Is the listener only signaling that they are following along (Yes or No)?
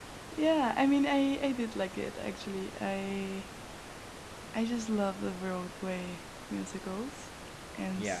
Yes